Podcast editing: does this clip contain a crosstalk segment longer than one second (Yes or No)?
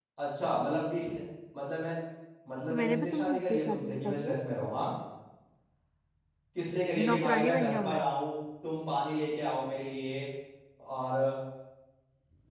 Yes